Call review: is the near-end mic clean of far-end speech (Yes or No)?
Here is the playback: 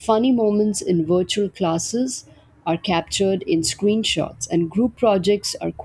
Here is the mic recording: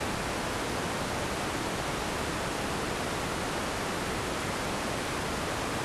Yes